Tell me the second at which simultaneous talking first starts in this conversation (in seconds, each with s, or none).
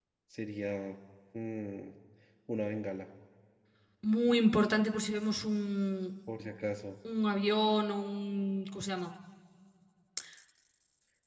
none